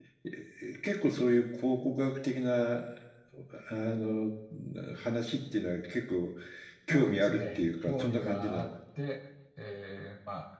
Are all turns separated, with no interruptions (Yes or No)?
No